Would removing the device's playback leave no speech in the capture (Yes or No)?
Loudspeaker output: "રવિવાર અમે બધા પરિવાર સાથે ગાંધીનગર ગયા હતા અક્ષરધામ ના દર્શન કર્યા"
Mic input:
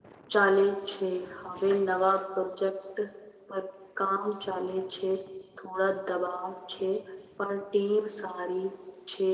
No